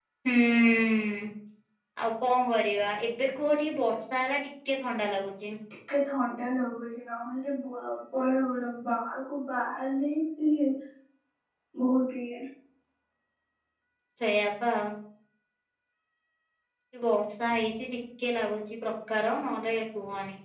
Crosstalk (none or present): none